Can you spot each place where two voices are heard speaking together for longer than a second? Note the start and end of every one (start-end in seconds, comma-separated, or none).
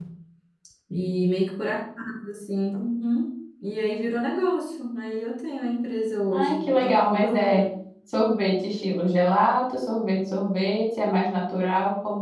6.3-7.6